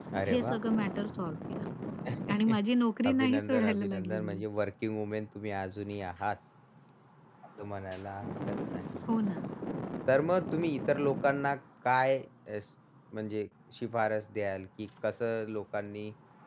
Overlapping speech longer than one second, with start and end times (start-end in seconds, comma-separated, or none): 3.1-4.4